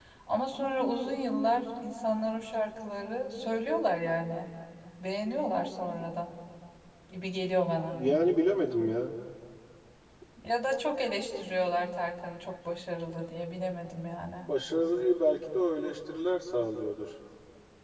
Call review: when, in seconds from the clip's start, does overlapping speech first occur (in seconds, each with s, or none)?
none